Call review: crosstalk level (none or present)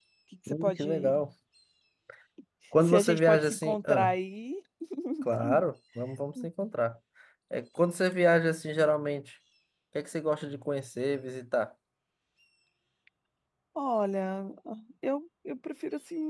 present